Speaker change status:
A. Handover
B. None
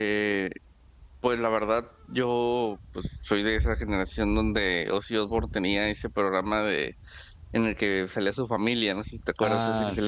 A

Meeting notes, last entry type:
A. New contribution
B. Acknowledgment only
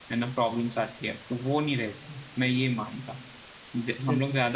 B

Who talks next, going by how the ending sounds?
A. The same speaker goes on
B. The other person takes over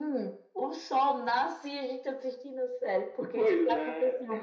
A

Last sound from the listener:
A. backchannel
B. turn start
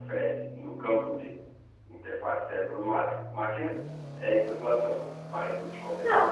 B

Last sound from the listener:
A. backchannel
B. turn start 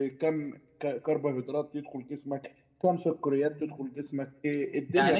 B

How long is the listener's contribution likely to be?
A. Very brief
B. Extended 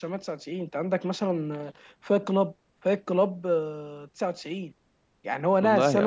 A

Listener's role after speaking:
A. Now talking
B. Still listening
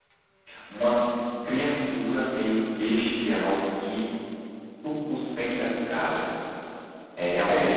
B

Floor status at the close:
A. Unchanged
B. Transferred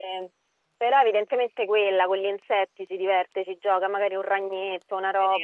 B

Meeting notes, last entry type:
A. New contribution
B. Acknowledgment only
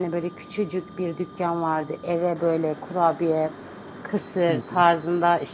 B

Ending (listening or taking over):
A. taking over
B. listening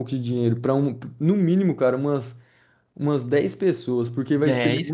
A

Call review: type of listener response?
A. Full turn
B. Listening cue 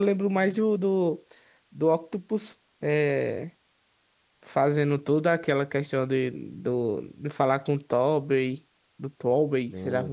A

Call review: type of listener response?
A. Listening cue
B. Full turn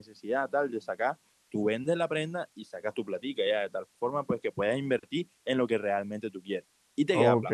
B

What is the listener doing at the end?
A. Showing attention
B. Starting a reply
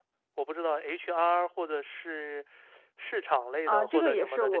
B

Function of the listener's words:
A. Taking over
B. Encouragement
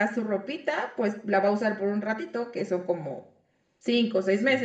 B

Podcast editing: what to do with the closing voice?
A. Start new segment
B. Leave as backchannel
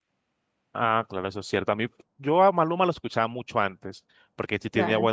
B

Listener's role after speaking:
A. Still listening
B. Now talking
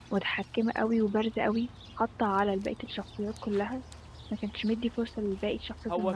B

